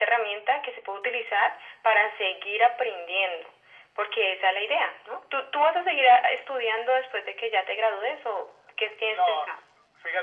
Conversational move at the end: taking over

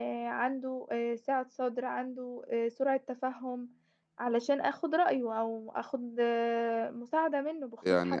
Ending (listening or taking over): taking over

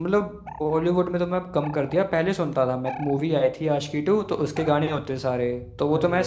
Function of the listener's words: listening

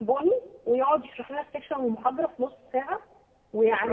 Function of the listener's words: listening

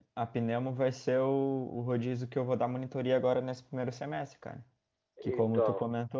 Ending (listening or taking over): listening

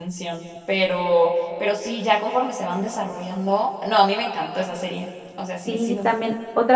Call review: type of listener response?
taking over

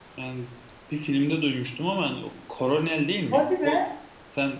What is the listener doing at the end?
listening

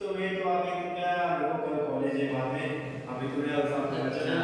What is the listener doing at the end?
listening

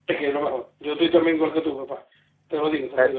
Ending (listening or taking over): taking over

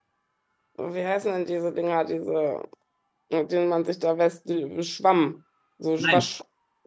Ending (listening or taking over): taking over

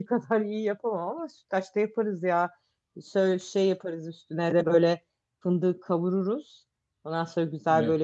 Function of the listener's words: listening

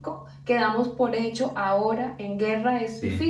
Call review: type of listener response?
taking over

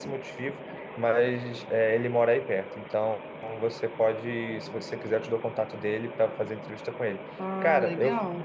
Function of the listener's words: listening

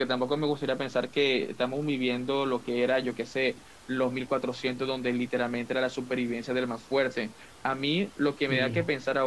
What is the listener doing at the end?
listening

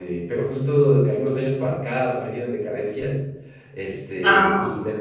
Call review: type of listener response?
listening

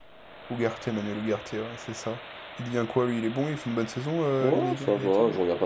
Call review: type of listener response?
taking over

